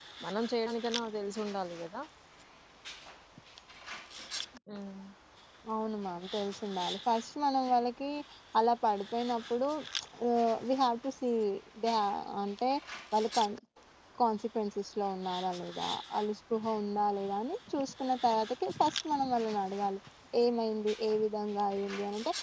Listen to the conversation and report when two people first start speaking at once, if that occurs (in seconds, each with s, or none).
none